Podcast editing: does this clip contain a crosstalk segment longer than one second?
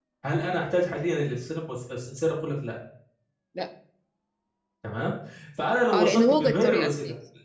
Yes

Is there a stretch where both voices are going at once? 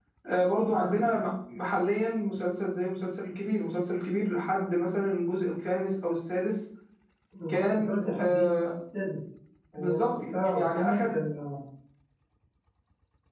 Yes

